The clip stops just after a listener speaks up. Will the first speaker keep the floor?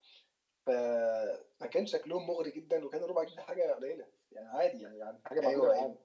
Yes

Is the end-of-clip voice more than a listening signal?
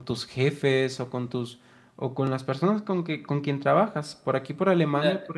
Yes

